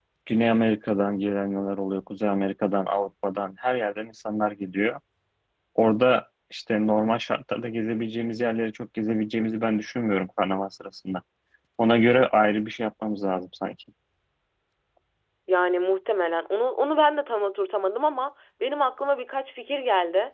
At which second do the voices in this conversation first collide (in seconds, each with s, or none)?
none